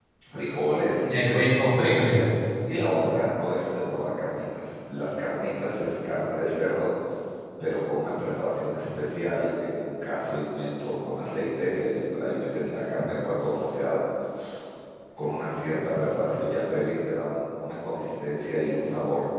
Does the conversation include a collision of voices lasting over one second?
Yes, from 1.0 s

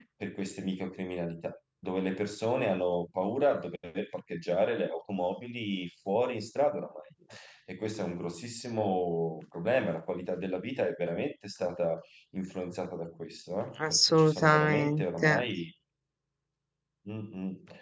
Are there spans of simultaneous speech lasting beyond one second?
Yes, from 13.8 s

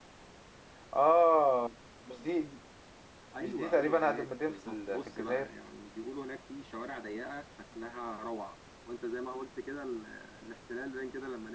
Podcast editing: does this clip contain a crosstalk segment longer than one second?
Yes, from 3.4 s

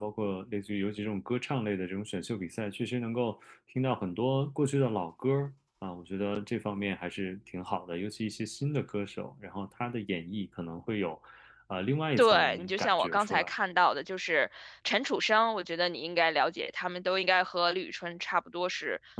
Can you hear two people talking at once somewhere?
Yes, from 12.2 s

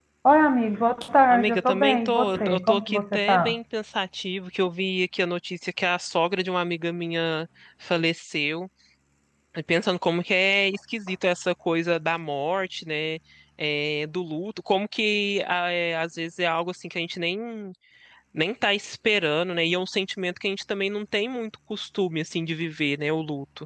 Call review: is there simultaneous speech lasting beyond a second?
Yes, from 1.3 s

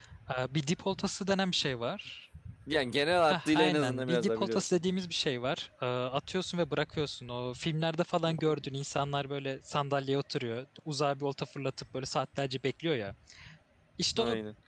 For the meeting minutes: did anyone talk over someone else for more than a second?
Yes, from 3.3 s

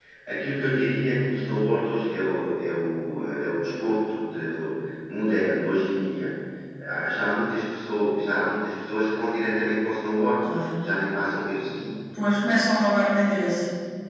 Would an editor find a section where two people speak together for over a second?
No

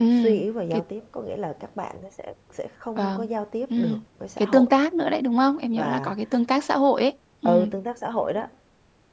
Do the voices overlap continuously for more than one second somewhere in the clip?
No

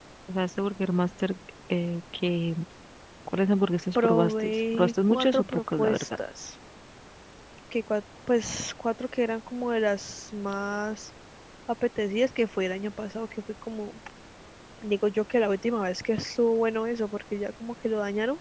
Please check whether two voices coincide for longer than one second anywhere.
Yes, from 4.0 s

